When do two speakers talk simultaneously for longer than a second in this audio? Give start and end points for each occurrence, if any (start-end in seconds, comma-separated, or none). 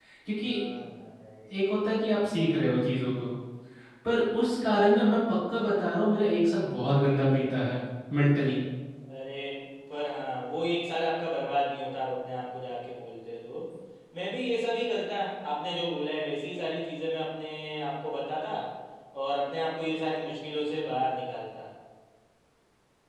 none